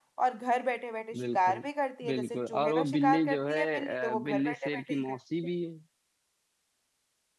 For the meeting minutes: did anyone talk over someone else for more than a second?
Yes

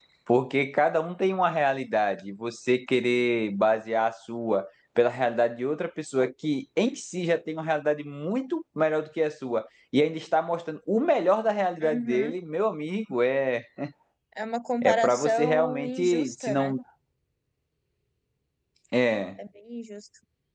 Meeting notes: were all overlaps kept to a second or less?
No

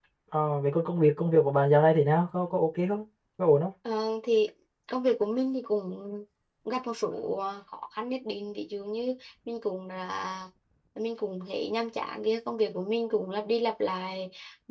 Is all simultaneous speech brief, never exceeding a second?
Yes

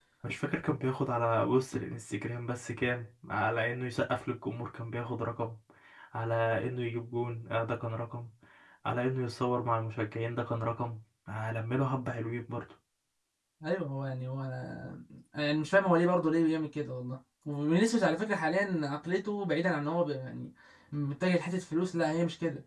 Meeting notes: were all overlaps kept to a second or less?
Yes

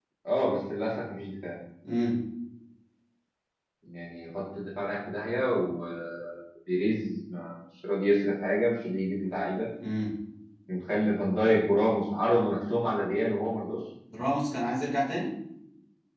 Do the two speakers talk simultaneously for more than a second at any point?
No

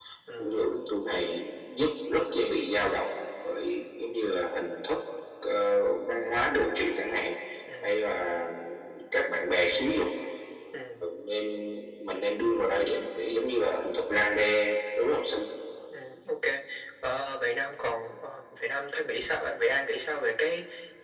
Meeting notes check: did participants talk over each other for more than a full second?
No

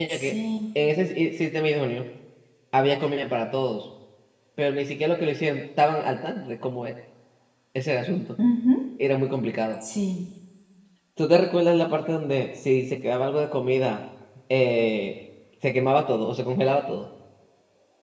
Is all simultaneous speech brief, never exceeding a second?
Yes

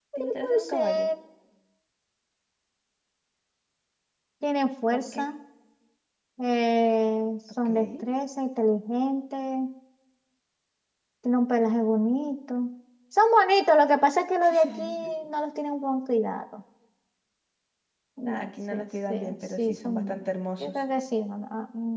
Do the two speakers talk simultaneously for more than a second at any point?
Yes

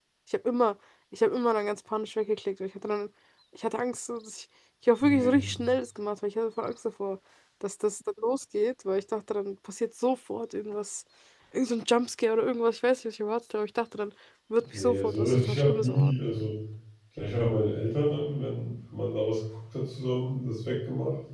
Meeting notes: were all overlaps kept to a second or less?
No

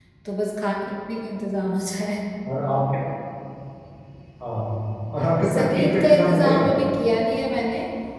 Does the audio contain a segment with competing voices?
Yes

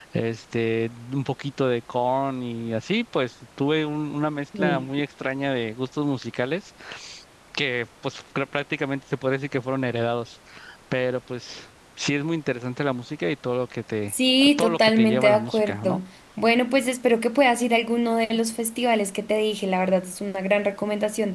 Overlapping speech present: Yes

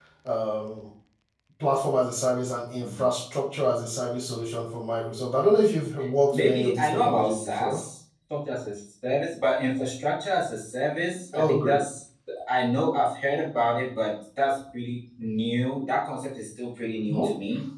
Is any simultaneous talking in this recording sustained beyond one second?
Yes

